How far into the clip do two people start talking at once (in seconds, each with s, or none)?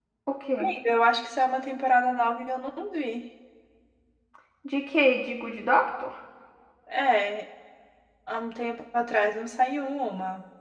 none